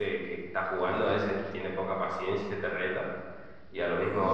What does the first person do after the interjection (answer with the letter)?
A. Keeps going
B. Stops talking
A